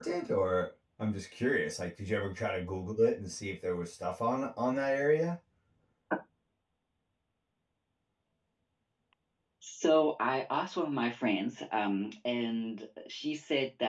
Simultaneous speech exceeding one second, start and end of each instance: none

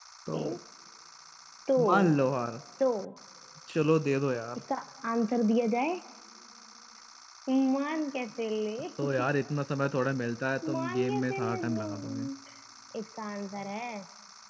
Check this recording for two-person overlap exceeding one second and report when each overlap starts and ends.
10.7-12.3

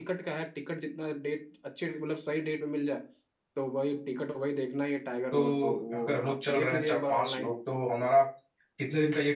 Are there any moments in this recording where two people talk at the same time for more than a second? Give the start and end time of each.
5.3-7.5

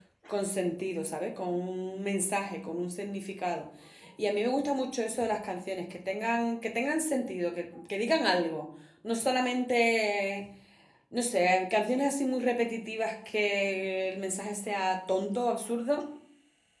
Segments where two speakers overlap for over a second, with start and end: none

